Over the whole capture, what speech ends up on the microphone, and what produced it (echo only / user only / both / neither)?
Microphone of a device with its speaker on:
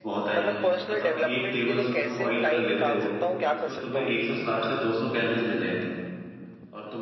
both